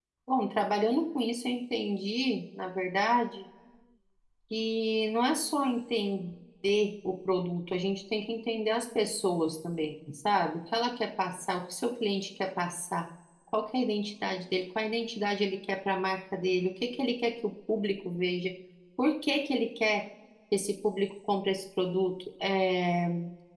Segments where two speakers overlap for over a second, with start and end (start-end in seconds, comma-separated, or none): none